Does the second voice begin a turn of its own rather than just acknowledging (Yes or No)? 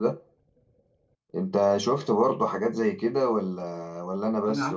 Yes